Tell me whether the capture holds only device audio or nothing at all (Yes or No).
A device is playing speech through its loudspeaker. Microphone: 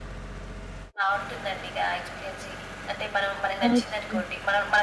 No